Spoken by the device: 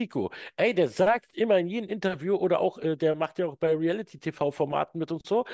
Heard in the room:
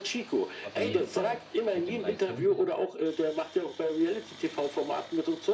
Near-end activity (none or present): present